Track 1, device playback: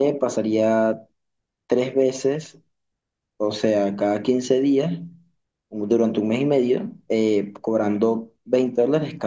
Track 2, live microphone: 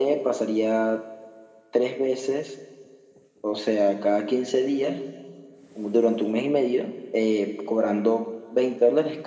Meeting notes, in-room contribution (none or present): none